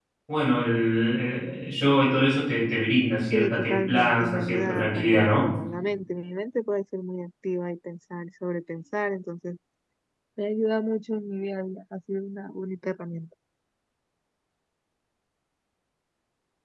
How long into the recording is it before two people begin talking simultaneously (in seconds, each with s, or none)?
3.3 s